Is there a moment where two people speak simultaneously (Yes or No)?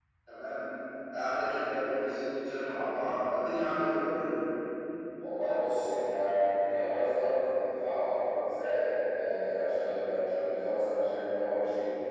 No